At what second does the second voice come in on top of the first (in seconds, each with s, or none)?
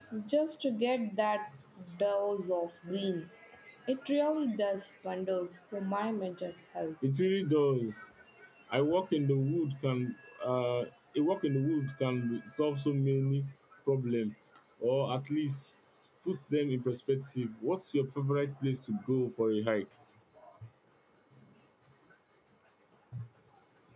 none